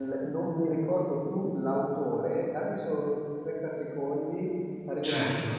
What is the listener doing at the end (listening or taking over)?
taking over